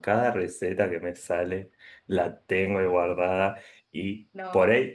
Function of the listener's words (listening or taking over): listening